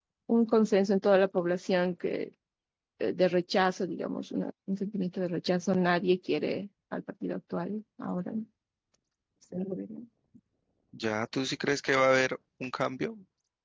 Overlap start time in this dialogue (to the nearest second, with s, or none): none